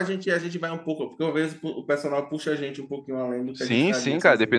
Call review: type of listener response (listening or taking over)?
taking over